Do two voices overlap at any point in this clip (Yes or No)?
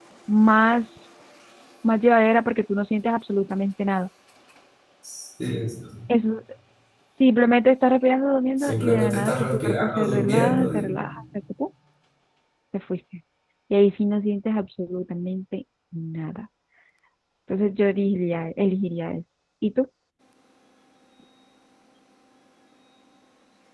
Yes